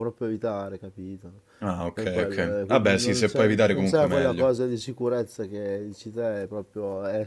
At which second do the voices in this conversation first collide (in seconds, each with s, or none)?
2.0 s